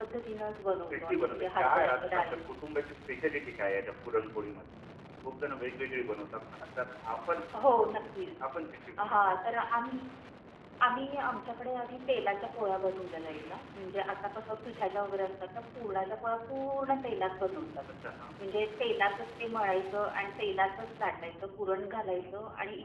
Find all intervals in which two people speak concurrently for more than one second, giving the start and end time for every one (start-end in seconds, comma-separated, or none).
0.9-2.2